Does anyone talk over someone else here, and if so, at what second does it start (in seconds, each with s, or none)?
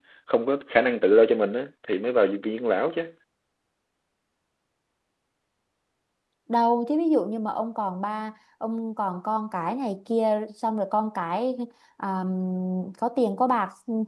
none